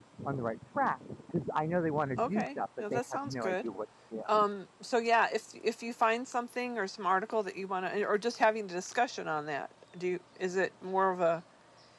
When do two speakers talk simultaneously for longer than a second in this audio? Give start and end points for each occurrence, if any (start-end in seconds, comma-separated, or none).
2.2-3.6